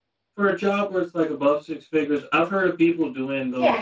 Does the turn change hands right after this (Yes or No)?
No